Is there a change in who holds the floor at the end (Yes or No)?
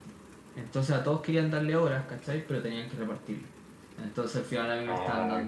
No